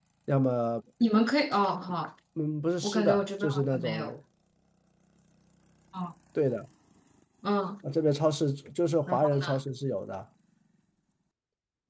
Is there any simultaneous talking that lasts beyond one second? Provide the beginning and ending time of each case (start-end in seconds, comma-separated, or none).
2.8-4.1